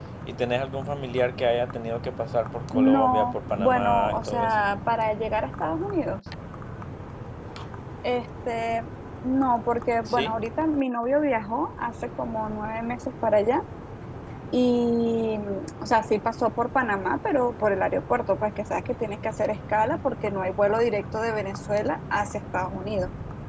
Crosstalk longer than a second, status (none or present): present